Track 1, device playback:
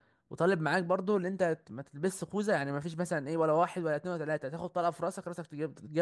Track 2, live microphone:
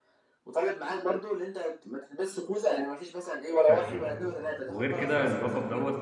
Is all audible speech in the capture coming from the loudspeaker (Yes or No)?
No